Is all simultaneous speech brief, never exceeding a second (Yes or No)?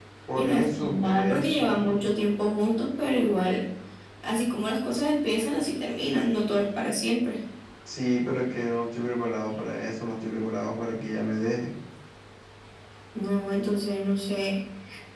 No